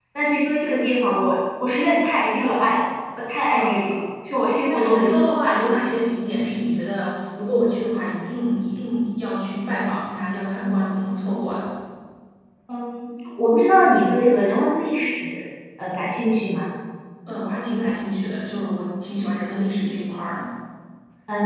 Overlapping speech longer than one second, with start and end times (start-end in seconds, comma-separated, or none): none